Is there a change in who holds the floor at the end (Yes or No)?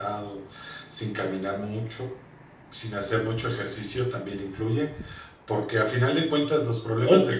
No